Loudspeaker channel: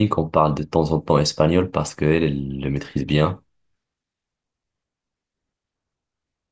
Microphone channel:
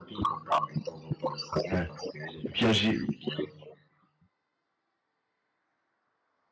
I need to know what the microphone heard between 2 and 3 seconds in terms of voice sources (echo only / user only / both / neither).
both